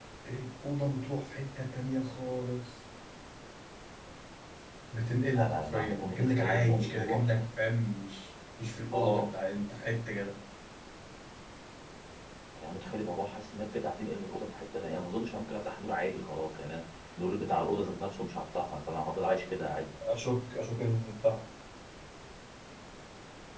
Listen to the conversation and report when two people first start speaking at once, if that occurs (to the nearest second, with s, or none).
5 s